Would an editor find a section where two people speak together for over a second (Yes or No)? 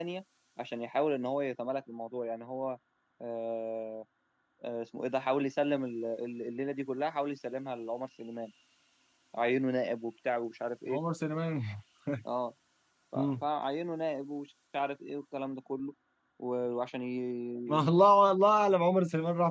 No